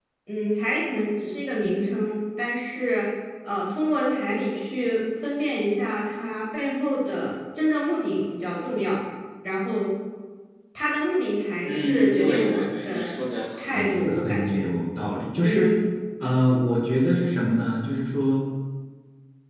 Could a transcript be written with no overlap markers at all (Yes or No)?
No